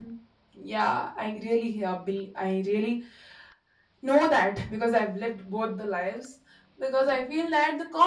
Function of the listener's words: listening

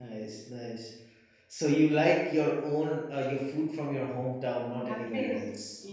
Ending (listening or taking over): taking over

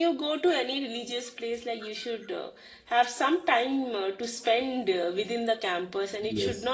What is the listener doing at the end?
listening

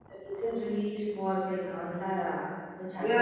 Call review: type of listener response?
taking over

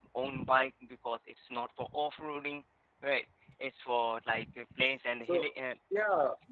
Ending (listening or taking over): taking over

